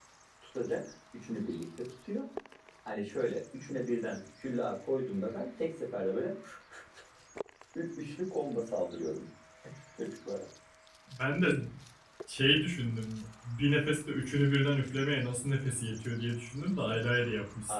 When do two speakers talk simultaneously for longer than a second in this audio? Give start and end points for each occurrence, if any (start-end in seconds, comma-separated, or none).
none